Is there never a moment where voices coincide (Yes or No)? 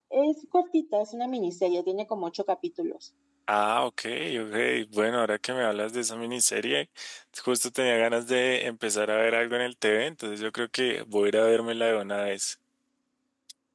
Yes